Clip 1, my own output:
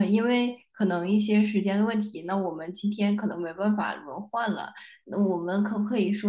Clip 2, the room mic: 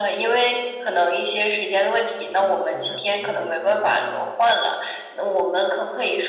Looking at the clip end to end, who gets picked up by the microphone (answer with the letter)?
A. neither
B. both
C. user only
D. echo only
B